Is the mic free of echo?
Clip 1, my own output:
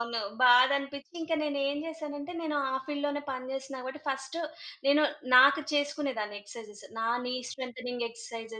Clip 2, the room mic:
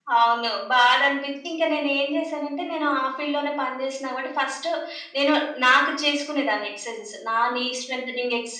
No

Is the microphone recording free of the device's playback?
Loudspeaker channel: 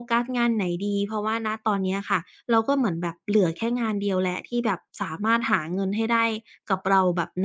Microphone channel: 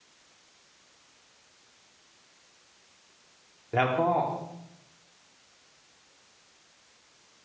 Yes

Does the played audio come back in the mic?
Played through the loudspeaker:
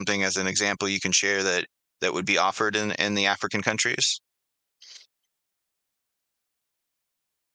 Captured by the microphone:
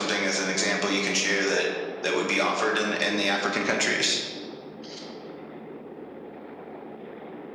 Yes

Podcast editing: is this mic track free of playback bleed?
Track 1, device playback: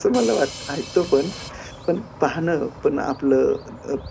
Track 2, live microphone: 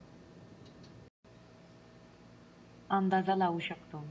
Yes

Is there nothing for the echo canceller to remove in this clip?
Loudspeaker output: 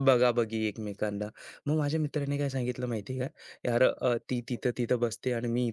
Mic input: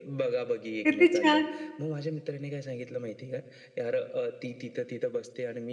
No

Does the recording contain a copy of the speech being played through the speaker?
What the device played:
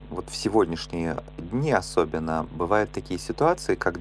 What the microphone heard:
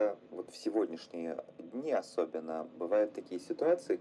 Yes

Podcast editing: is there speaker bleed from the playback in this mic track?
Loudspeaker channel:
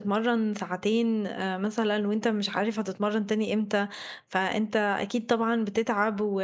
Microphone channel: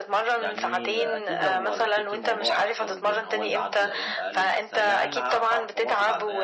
Yes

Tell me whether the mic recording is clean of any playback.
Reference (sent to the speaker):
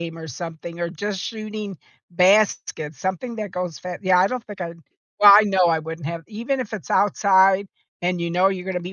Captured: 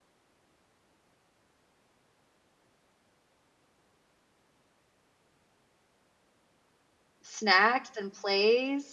Yes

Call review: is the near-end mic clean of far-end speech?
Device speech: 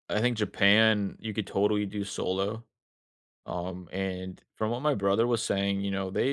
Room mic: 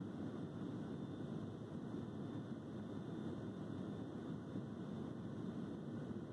Yes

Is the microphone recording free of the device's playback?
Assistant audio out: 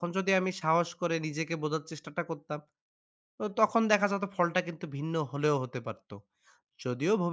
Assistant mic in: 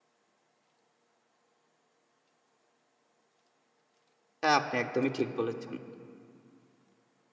Yes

